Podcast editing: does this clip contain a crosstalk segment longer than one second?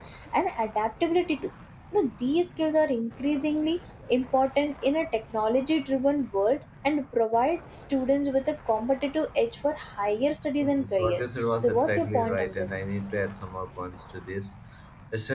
Yes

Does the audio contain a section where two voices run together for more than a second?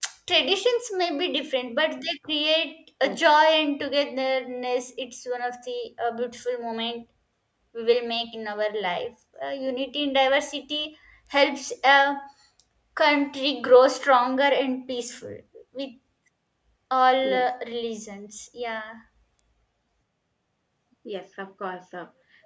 No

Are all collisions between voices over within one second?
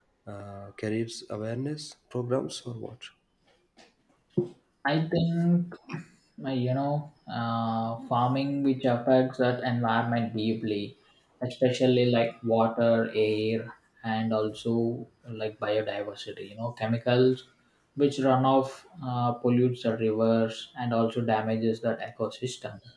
Yes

